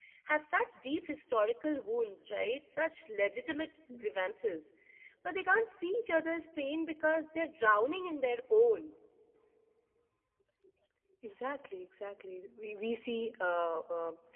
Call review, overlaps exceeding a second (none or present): none